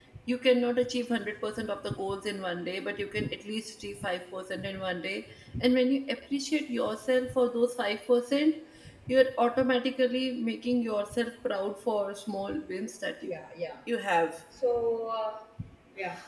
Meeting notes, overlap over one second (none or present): none